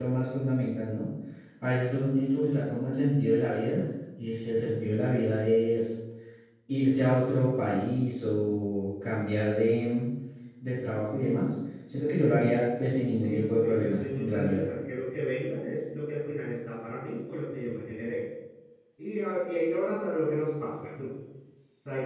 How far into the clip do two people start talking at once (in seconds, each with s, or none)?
13.2 s